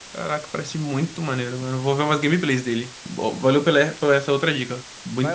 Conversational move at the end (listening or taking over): taking over